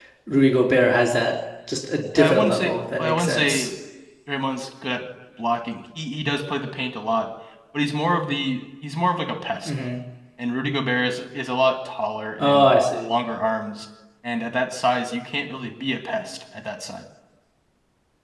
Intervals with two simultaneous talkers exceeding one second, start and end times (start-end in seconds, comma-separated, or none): 2.1-3.7